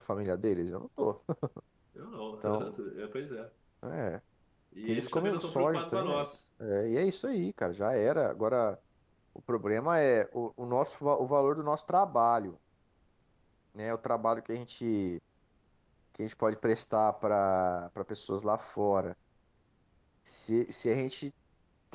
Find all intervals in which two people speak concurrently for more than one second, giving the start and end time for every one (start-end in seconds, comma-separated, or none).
4.9-6.2